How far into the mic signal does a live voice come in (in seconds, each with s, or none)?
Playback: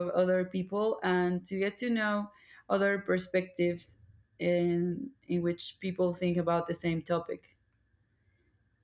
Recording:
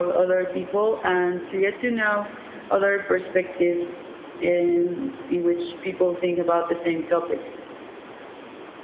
none